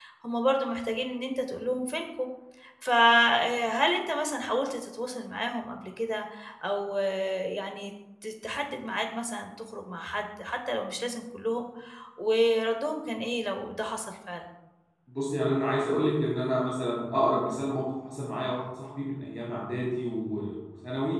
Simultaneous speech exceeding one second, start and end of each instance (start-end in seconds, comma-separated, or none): none